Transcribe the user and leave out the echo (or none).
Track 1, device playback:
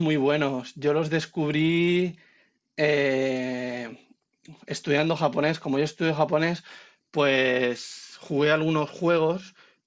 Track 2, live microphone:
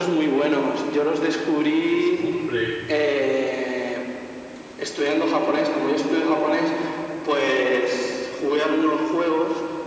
sí, sí. Hombre,